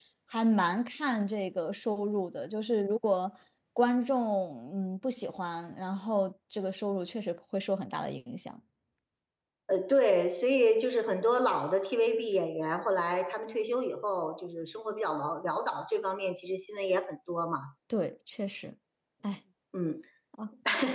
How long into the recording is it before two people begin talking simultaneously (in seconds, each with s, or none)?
none